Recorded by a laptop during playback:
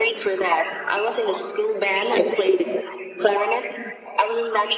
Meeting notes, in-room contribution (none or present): none